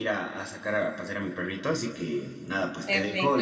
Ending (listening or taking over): taking over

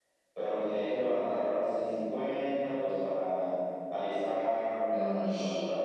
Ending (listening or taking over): listening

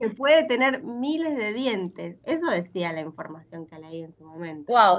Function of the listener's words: taking over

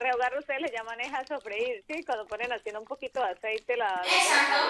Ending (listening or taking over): taking over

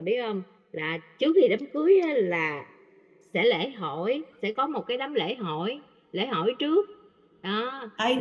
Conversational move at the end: taking over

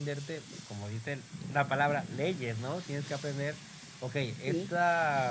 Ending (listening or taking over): listening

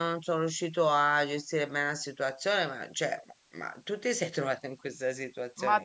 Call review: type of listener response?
taking over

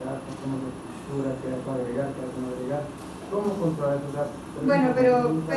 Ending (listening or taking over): taking over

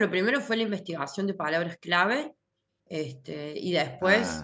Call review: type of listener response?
listening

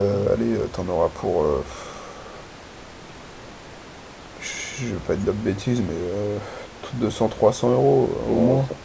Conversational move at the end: taking over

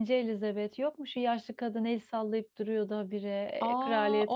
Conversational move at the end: taking over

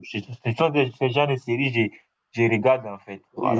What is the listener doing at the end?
taking over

